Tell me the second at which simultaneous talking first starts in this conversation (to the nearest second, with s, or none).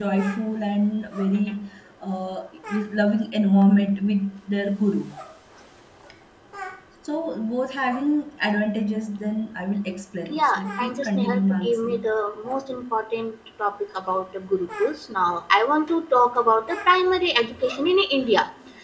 10 s